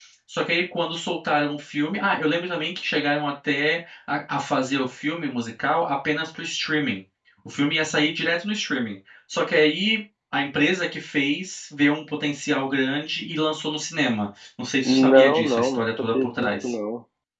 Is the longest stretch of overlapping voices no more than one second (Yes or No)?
No